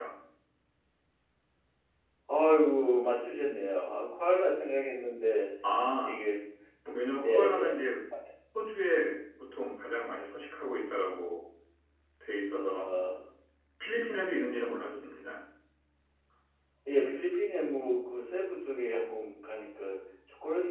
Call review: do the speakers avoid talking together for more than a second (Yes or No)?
Yes